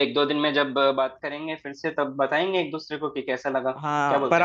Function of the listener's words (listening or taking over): taking over